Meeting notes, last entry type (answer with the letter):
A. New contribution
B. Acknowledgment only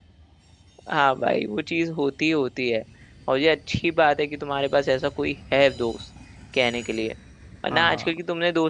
B